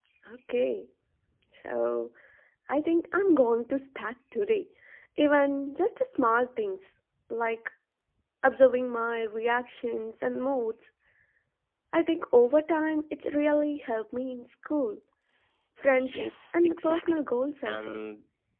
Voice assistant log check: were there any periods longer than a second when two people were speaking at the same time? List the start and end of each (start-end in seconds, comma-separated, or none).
15.9-17.2